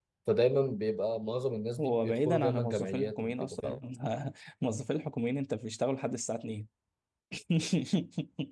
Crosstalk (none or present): present